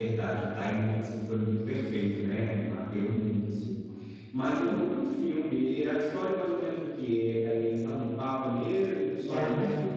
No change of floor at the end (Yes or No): No